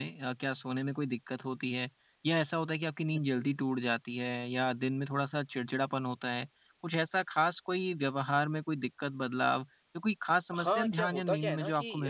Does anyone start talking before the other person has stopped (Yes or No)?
Yes